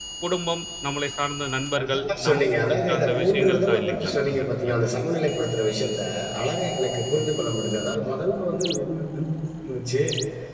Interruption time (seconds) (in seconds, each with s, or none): 1.7 s